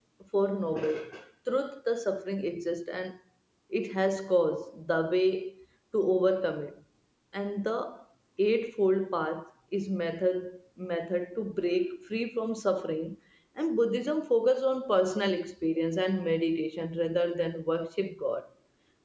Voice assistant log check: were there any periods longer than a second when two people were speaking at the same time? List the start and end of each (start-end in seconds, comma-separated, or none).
none